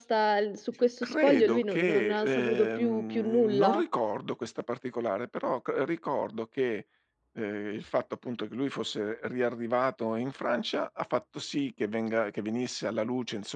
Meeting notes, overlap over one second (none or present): present